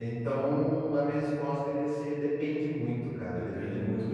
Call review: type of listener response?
listening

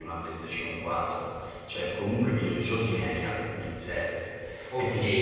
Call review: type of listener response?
taking over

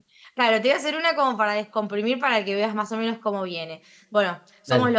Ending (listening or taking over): listening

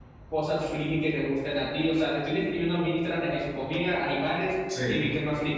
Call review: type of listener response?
listening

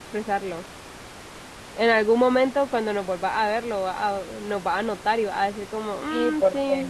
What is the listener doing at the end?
taking over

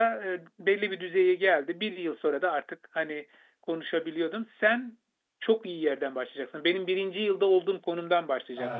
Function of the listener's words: taking over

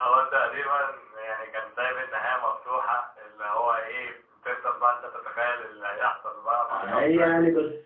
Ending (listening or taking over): taking over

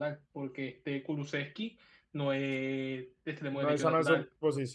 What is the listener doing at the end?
taking over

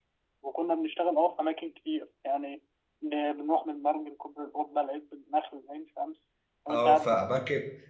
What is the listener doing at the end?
taking over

